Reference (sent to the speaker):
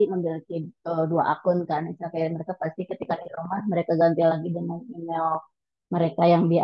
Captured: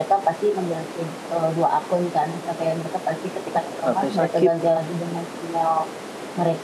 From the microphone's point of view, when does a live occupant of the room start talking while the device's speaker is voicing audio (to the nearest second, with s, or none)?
4 s